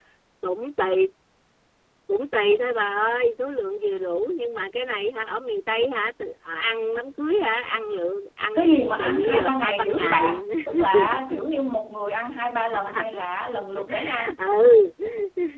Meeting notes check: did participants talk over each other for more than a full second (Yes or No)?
Yes